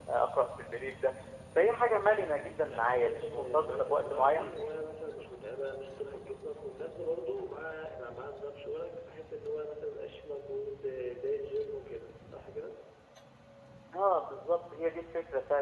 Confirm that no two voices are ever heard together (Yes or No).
No